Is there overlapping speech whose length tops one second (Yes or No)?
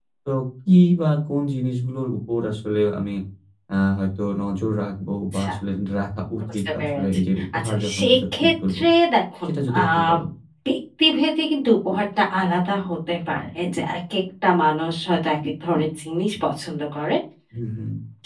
Yes